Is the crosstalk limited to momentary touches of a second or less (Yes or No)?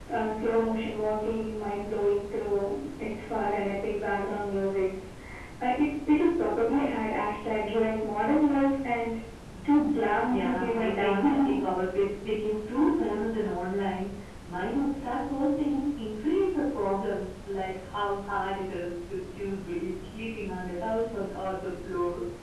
No